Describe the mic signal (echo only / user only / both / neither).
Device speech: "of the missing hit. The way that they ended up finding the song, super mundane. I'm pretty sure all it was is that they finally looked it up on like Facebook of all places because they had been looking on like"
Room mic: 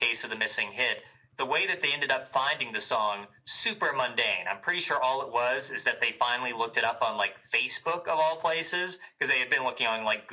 echo only